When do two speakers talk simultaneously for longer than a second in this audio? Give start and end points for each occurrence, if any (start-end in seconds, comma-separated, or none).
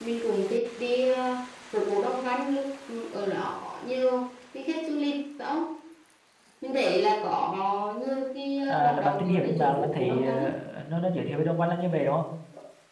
8.7-10.4